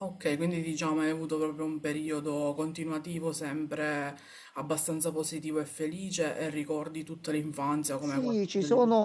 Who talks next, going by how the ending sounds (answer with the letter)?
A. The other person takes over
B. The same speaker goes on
A